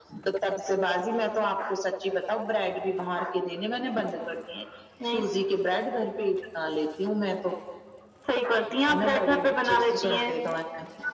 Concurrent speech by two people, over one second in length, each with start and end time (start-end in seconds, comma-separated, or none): 8.9-10.3